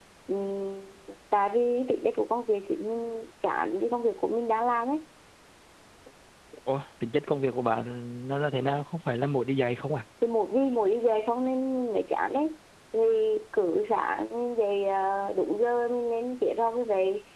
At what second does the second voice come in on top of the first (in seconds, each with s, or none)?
none